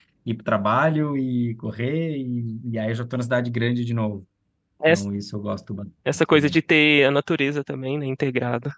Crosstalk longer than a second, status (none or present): none